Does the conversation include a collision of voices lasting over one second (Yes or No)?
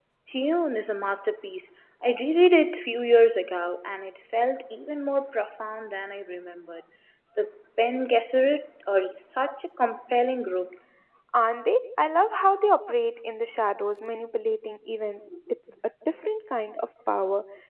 No